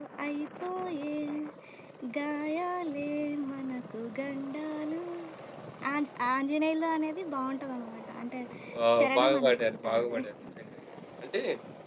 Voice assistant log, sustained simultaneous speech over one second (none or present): present